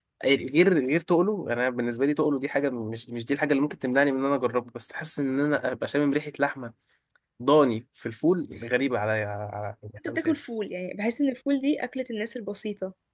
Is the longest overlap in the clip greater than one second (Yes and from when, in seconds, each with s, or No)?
No